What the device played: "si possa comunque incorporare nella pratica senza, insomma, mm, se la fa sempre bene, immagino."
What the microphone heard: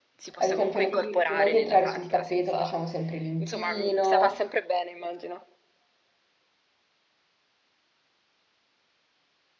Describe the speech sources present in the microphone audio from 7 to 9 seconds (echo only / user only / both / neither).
neither